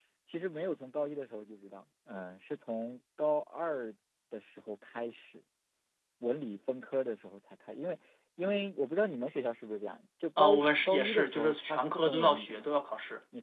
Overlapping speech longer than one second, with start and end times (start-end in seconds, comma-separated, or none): 10.4-12.7